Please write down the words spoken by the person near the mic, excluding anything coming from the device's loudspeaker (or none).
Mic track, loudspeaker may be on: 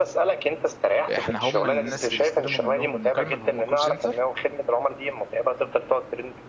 احنا هم الناس اللي بيستلموا منهم المكالمه اللي هم كول سنتر